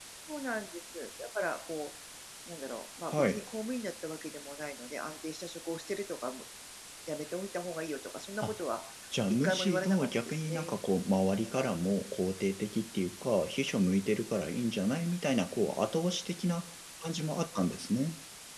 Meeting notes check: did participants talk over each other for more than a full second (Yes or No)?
Yes